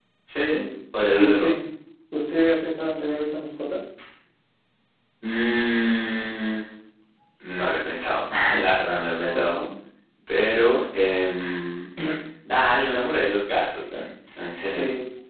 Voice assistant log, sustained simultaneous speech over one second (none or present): none